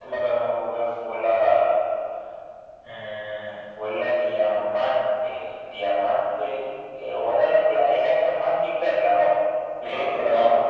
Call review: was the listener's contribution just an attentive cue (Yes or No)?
No